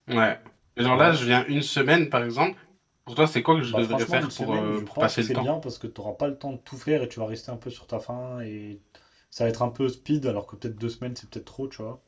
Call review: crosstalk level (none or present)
present